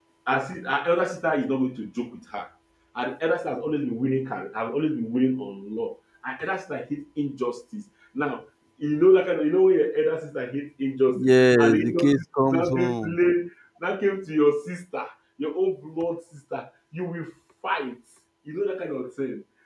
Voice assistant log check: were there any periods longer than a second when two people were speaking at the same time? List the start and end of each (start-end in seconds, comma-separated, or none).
11.2-13.2